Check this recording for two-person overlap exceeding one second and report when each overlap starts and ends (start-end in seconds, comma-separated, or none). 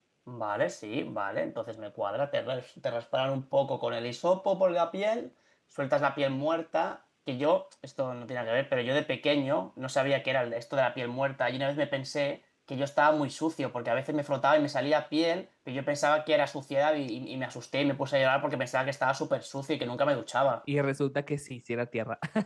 none